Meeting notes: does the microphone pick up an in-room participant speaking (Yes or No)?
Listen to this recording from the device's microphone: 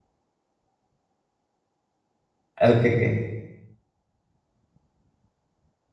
Yes